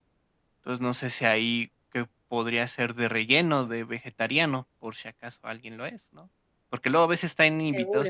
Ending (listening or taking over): listening